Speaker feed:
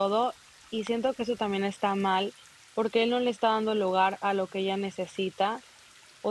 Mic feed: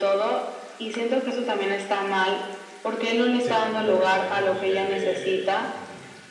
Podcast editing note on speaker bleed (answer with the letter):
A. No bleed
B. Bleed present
B